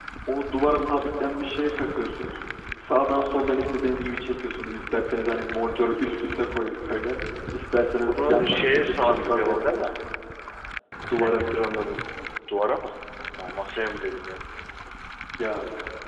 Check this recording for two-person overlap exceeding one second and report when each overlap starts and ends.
8.0-9.8

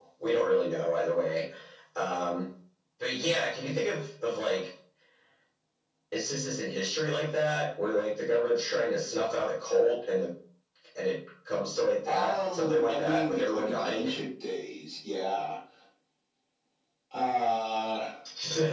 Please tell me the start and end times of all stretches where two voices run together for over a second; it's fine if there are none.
12.1-14.1

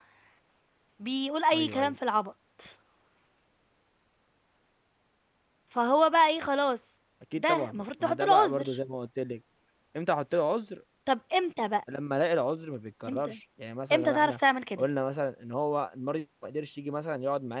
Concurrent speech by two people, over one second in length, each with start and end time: 7.4-8.7

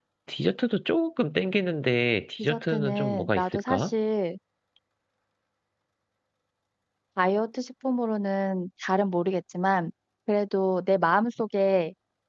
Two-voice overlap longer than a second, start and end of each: 2.4-3.9

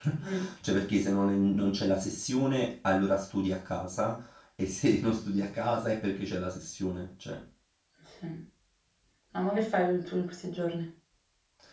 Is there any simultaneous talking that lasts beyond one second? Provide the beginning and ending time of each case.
none

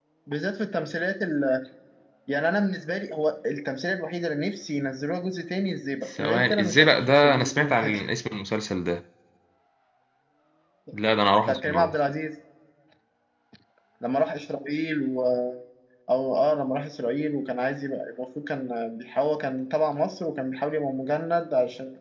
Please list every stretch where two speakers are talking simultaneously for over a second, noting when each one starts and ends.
6.2-8.1

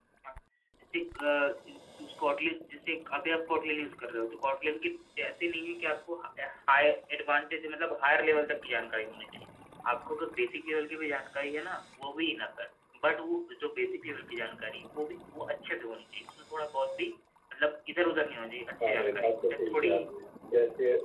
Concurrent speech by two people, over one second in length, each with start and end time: 18.8-20.1

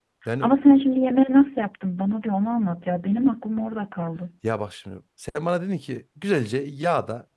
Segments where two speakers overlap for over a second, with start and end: none

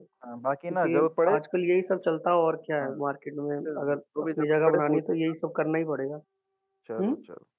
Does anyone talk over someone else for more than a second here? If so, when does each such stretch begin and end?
3.6-5.0

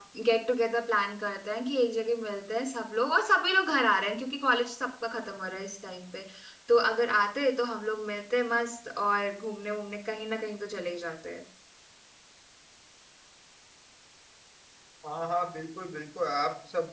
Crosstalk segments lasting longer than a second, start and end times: none

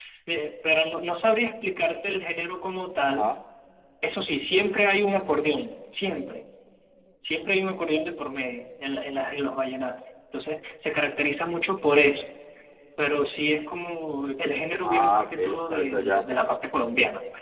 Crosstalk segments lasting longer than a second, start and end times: 14.8-16.3

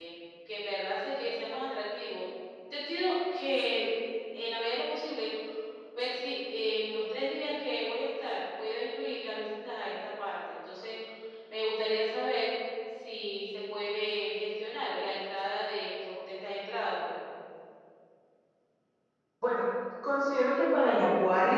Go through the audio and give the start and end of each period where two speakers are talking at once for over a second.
none

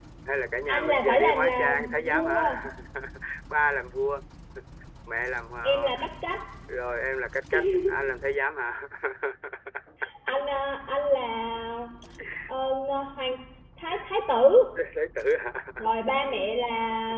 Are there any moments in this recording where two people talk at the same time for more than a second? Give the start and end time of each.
0.7-2.4

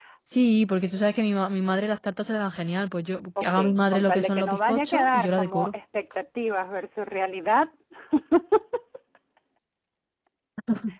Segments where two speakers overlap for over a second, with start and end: 3.4-5.7

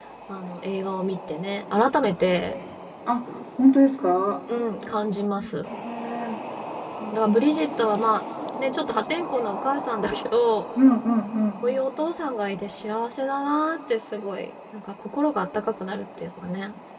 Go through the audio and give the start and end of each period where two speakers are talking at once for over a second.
none

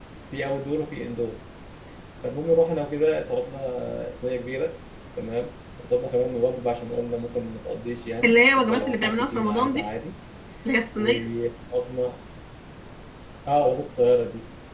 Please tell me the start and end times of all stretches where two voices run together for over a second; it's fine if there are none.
8.2-9.9

